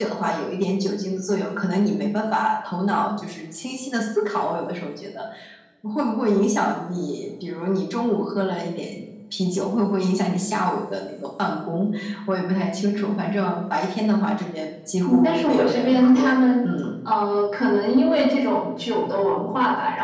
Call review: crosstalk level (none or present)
present